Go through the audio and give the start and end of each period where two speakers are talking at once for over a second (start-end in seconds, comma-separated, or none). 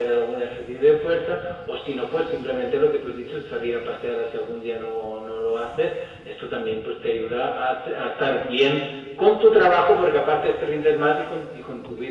none